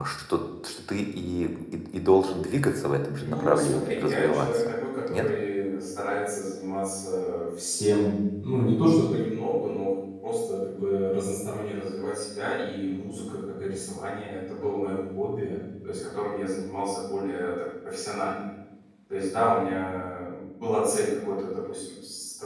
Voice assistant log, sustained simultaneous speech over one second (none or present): present